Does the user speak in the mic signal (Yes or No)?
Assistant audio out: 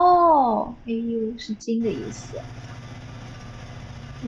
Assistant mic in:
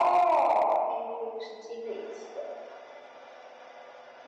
No